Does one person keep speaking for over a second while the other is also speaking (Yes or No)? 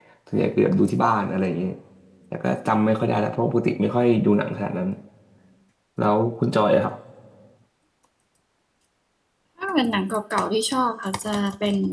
No